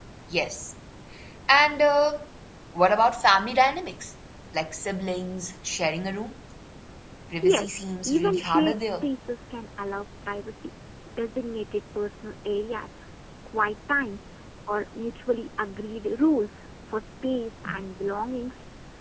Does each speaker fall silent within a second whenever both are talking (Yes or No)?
No